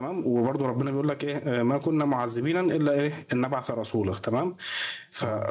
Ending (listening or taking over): listening